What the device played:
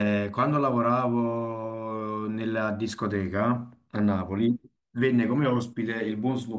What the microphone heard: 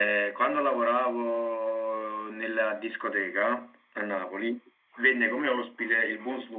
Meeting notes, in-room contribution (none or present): none